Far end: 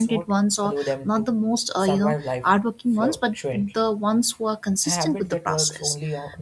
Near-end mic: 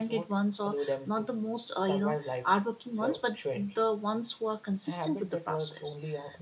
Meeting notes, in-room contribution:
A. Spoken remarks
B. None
B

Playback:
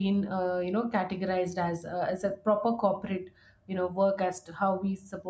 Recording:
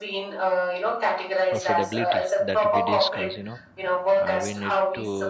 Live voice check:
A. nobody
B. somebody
B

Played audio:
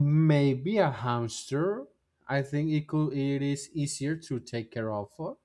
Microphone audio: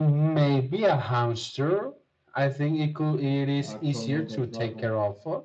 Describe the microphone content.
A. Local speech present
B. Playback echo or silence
A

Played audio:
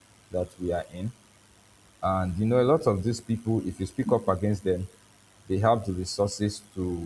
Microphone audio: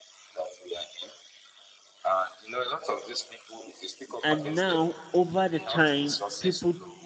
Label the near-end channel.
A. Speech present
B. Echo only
A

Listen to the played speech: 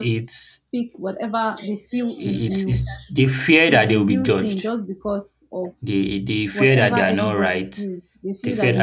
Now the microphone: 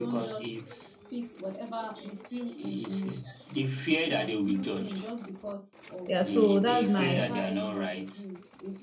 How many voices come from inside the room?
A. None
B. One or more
B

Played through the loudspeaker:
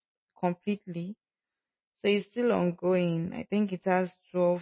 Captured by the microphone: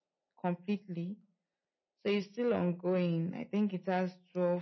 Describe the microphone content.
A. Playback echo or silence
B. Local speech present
A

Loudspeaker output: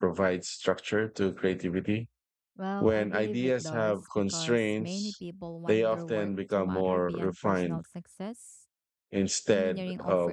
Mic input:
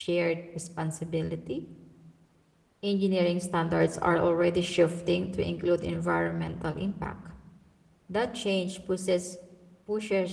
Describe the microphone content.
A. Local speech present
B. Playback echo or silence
A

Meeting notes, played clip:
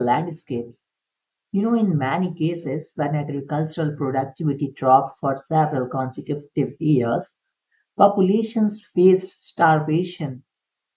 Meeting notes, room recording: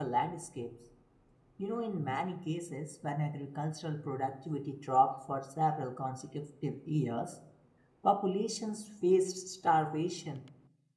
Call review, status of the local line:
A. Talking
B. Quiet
B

